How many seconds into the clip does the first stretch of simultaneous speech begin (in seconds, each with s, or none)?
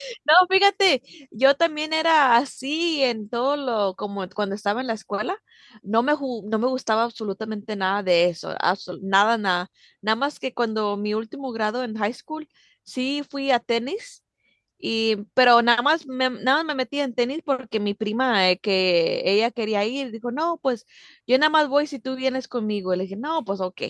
none